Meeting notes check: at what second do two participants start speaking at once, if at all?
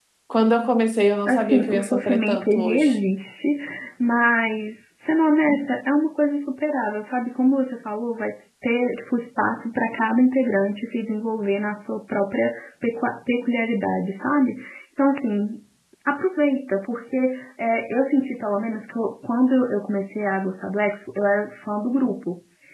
1 s

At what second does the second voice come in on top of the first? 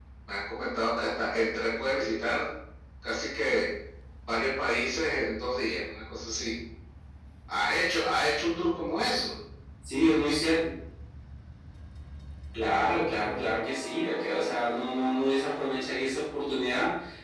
none

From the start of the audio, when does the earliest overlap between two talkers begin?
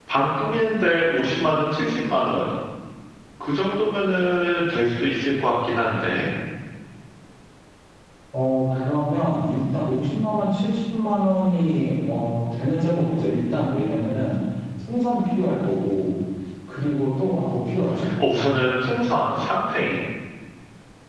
none

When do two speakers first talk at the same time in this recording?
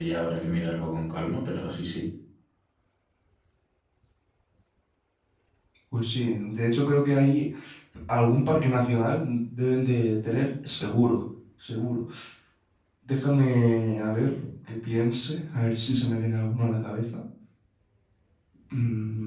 none

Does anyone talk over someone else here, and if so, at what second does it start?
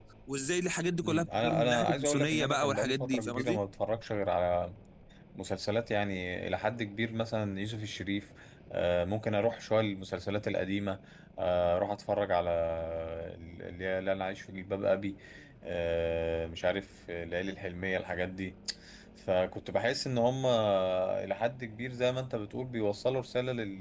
1 s

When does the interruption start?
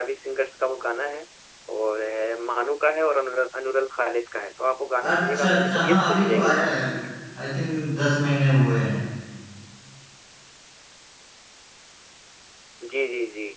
5 s

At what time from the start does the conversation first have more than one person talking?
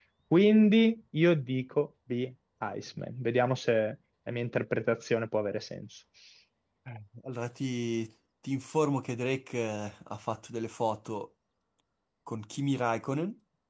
none

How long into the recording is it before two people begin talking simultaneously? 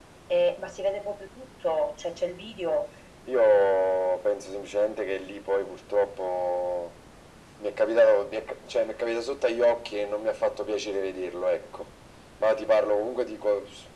none

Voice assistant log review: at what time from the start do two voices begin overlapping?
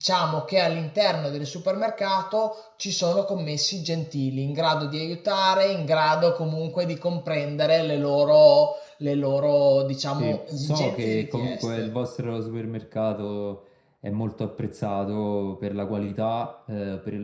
10 s

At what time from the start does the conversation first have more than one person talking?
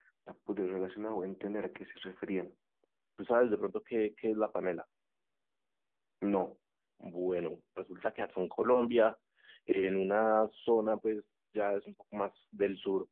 none

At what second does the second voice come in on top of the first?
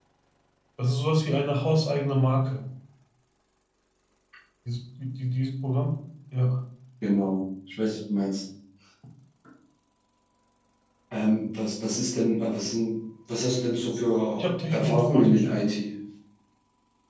14 s

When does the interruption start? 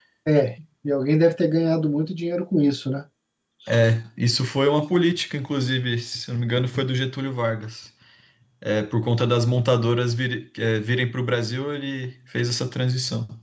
none

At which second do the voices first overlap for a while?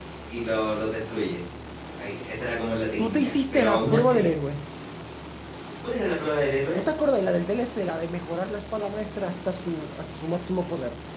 3 s

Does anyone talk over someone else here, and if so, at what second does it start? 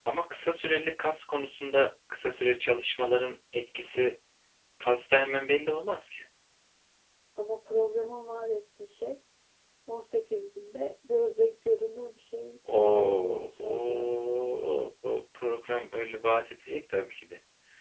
13 s

